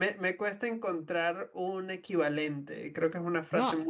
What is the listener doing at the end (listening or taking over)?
taking over